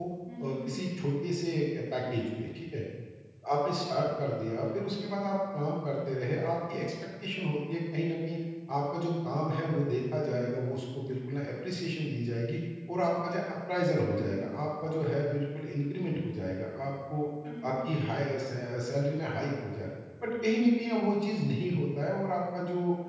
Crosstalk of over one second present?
No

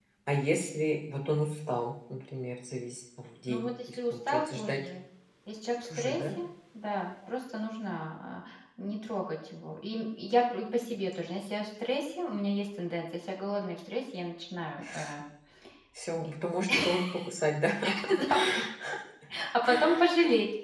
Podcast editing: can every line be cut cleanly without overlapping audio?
No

